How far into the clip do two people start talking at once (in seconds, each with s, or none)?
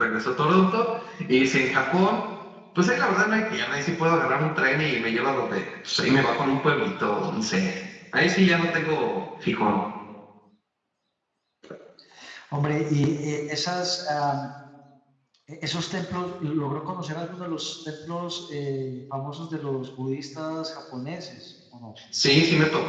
none